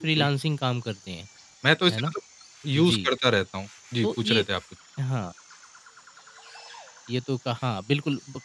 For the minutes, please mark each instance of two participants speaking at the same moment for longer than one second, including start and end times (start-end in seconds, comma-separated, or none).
none